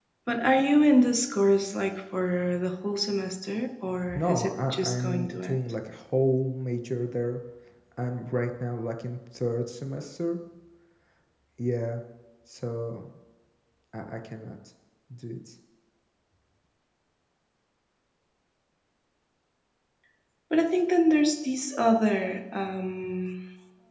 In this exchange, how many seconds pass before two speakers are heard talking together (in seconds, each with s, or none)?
3.9 s